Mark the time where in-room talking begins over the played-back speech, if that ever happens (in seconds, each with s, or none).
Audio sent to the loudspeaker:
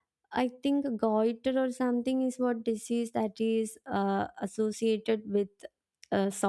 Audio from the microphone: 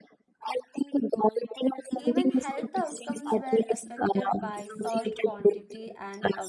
1.9 s